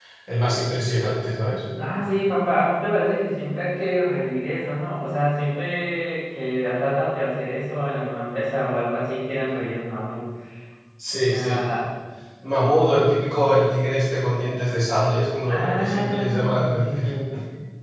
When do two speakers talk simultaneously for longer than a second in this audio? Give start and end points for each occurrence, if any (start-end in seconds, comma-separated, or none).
15.5-17.0